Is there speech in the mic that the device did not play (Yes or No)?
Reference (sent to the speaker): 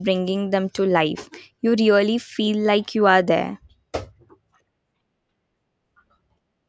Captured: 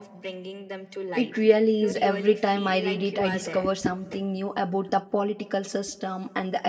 Yes